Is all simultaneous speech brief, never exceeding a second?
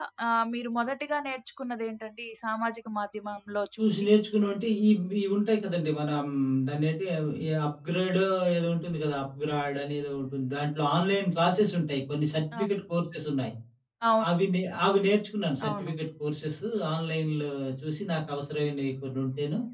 Yes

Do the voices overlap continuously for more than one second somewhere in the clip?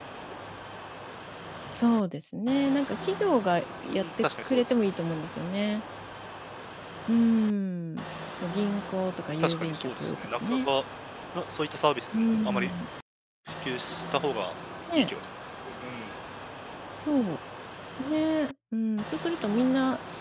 Yes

